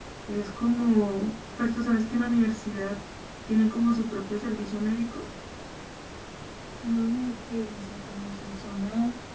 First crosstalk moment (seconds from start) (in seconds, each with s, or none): none